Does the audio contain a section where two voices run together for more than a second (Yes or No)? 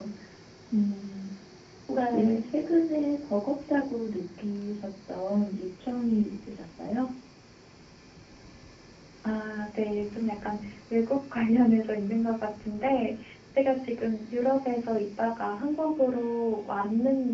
No